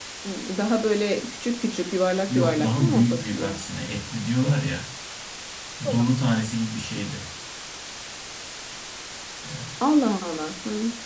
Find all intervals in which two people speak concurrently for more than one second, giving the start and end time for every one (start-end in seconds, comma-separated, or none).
2.3-3.5